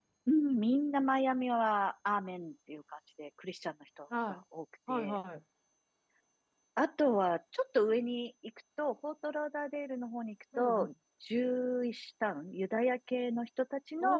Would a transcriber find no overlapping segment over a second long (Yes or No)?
Yes